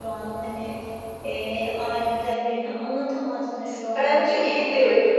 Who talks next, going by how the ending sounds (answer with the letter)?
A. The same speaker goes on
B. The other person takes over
B